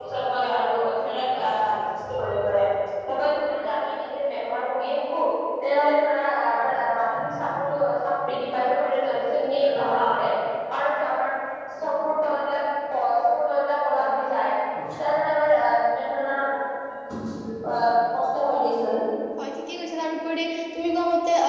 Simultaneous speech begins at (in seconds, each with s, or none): none